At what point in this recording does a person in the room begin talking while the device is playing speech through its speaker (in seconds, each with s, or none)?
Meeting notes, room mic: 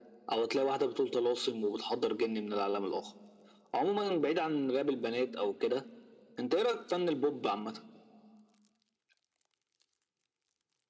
none